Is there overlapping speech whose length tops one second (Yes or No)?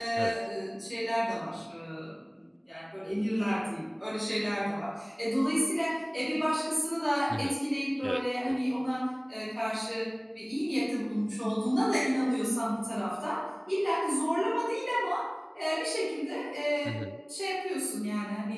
No